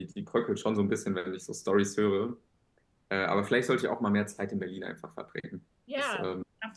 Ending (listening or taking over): taking over